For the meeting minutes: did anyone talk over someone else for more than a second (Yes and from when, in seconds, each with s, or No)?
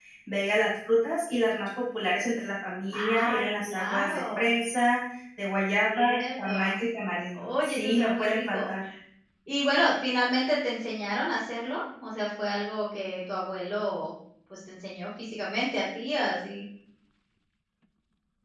Yes, from 2.9 s